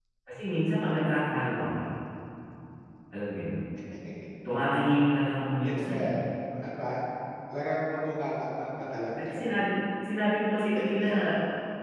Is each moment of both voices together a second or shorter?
Yes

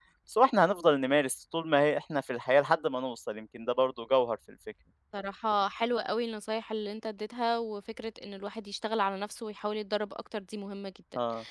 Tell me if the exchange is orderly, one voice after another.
Yes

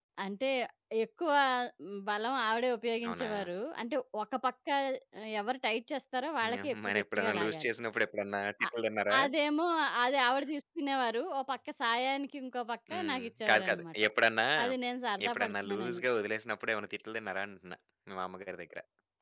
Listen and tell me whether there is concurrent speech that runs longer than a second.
Yes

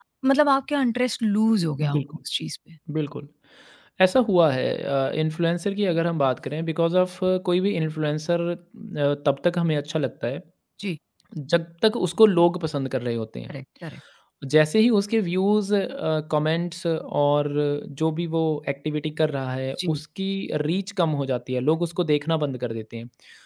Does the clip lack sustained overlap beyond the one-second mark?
Yes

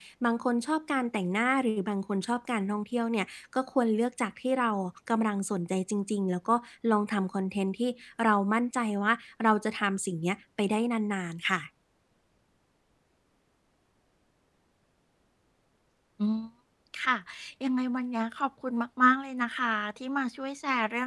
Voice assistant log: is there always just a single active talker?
Yes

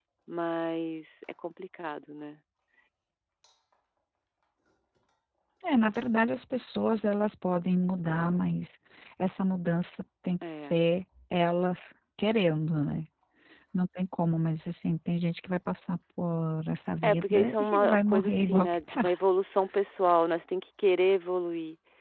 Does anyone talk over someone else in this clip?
Yes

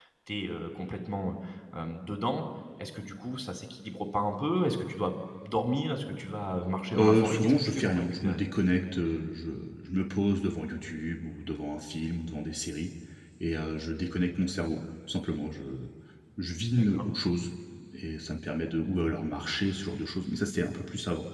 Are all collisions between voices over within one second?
No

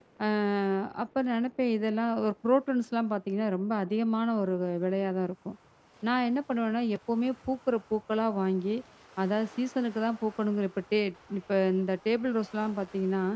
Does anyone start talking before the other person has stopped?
No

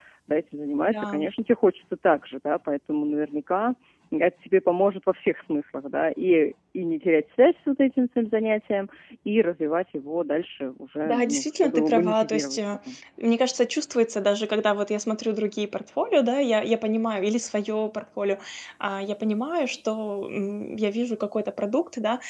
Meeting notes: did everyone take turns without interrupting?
No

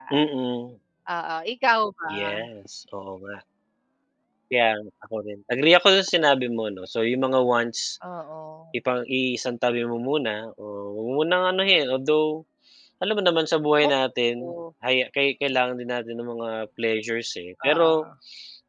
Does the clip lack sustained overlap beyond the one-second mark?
Yes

